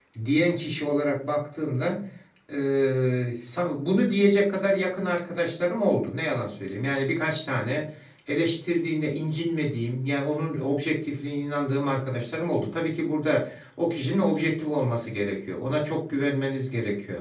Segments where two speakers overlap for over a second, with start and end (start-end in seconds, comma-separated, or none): none